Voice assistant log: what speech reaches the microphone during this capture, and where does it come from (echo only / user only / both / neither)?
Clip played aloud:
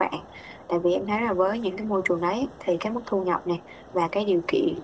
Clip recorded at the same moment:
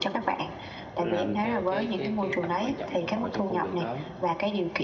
both